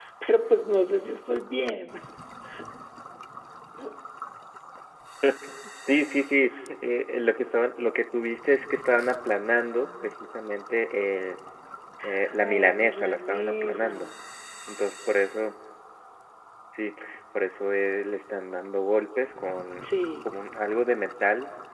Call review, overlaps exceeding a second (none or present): present